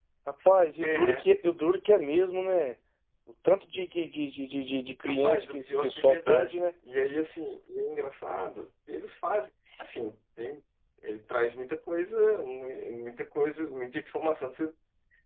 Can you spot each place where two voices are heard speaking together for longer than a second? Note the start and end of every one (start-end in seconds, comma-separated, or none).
5.1-6.6